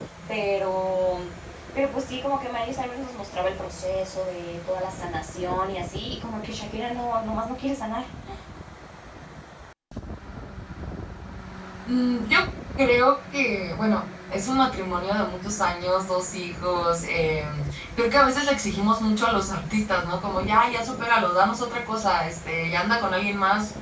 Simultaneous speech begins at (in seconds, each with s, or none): none